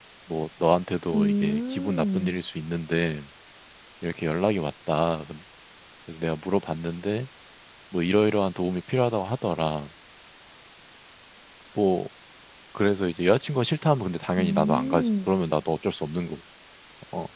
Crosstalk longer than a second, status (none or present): present